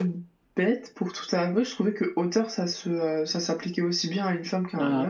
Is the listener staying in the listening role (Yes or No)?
No